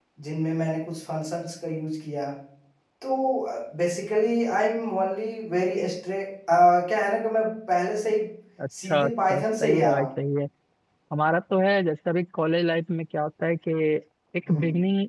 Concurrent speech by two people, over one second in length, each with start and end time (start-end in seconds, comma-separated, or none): 8.8-10.1